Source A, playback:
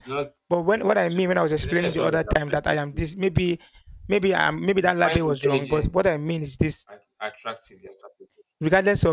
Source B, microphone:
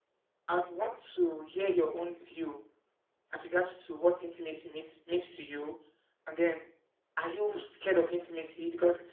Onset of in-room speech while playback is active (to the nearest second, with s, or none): 0 s